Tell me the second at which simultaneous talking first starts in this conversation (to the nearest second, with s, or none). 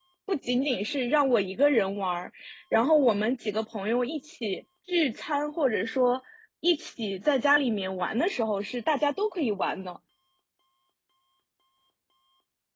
none